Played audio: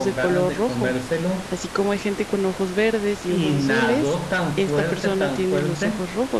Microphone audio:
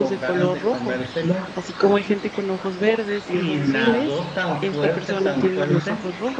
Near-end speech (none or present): none